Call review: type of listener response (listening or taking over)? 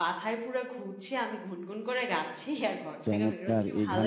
taking over